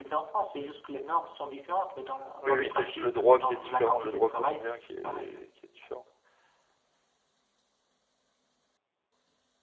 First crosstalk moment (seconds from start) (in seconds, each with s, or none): 2.4 s